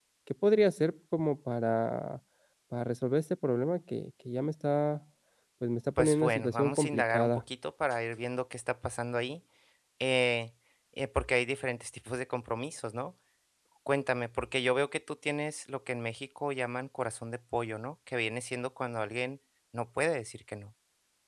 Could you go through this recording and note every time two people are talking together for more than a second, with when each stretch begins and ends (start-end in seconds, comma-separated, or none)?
6.0-7.3